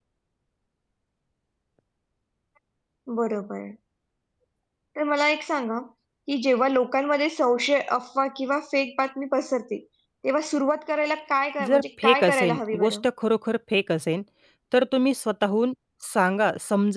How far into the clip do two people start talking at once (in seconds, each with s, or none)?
11.6 s